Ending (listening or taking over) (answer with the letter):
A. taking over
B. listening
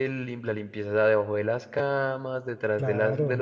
B